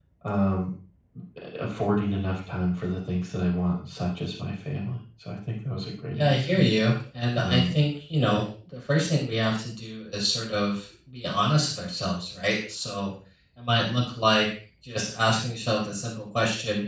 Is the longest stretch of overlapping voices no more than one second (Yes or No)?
Yes